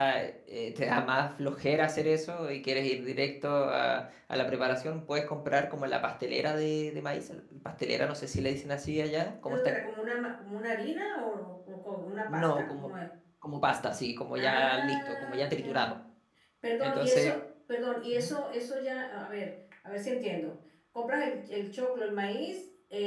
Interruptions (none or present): present